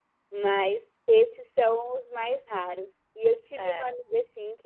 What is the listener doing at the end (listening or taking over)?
listening